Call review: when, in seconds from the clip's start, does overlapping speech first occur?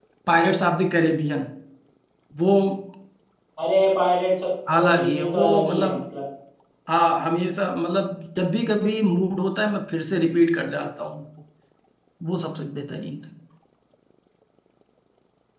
4.7 s

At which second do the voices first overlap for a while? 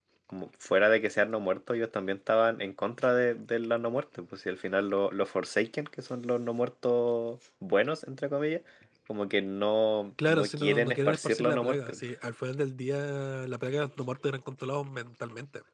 10.2 s

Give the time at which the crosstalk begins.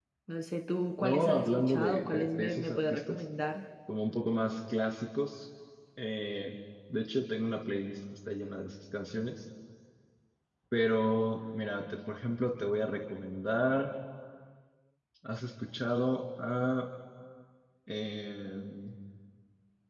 1.0 s

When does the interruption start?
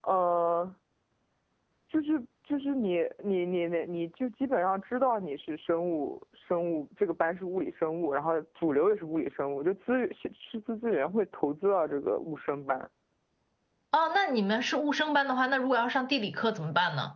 none

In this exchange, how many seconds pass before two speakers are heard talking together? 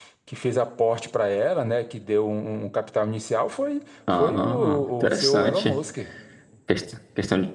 4.1 s

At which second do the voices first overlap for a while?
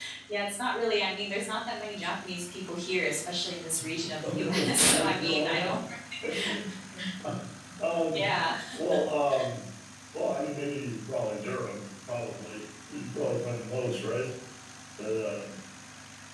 4.2 s

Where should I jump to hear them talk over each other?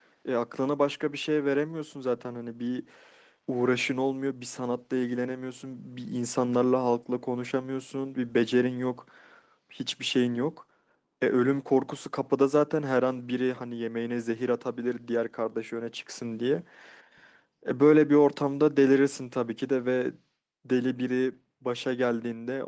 none

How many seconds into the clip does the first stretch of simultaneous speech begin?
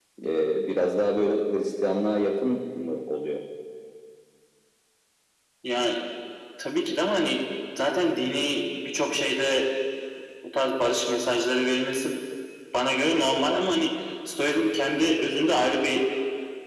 none

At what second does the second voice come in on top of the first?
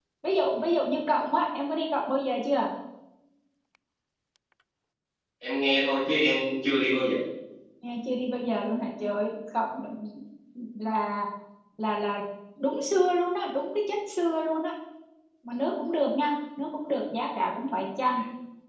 none

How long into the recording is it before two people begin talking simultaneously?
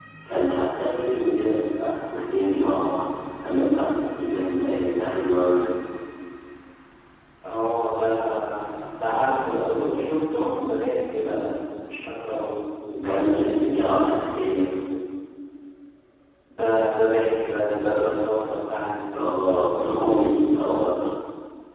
none

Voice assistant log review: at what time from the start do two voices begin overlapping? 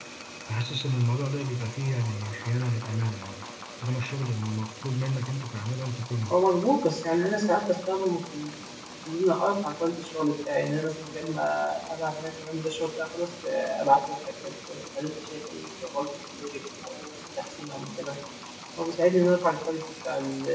none

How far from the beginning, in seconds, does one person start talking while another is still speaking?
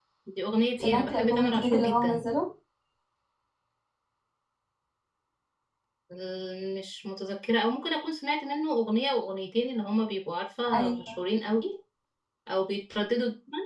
0.8 s

